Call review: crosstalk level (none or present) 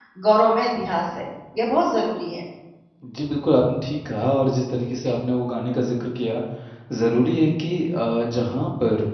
none